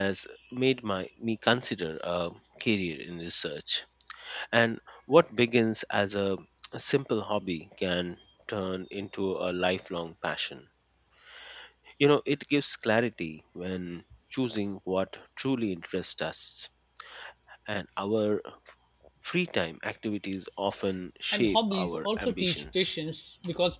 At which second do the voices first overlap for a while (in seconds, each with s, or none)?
21.3 s